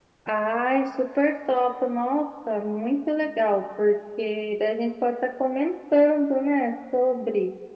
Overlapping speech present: No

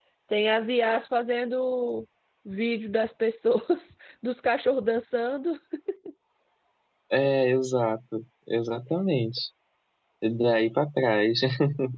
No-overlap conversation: Yes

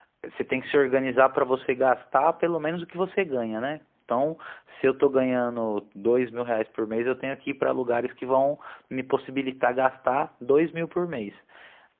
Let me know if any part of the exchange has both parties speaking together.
No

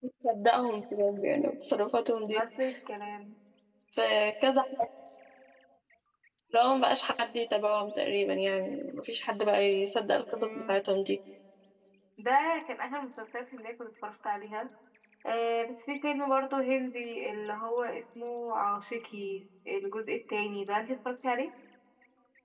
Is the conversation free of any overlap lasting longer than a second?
Yes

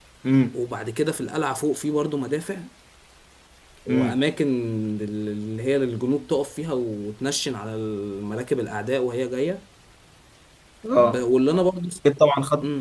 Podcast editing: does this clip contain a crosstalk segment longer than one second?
No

